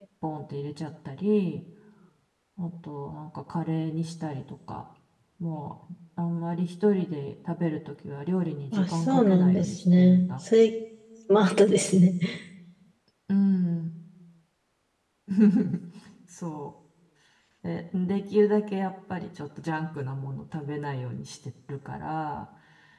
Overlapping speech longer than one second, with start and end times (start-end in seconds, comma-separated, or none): 8.7-10.3